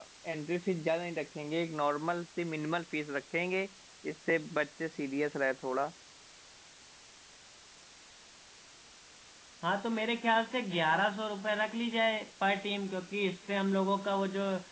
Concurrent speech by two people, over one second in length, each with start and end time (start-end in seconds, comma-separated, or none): none